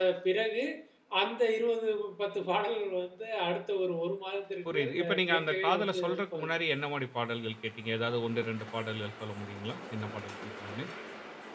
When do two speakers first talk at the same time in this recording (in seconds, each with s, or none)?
4.7 s